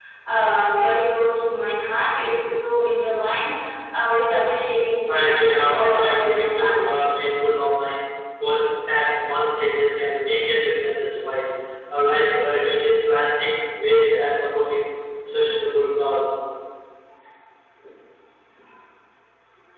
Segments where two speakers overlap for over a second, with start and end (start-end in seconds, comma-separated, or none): 5.1-6.9